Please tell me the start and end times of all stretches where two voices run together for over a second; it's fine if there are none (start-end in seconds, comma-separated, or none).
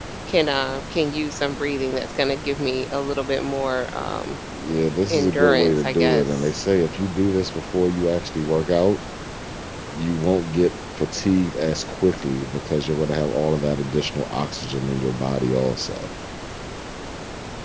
5.1-6.5